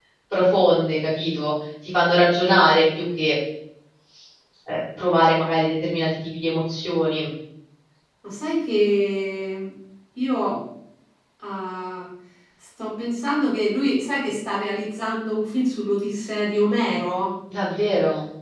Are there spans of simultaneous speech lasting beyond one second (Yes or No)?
No